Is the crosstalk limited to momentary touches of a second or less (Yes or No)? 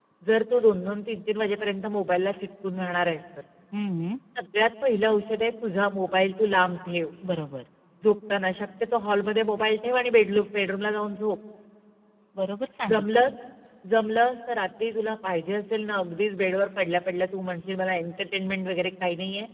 Yes